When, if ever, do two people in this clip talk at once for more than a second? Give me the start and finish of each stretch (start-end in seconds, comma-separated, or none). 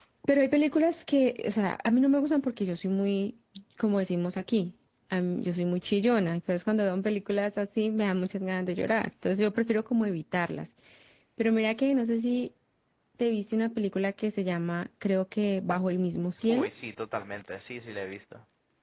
none